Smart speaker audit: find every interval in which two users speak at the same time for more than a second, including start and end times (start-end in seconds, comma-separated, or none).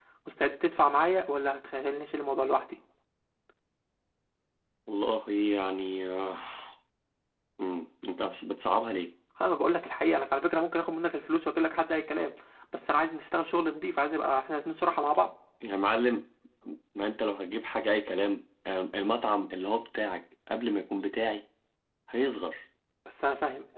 none